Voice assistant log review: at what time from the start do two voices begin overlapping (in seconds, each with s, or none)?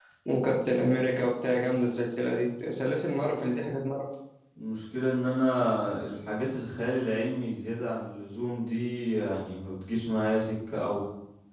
none